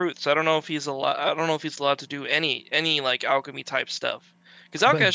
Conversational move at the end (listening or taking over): listening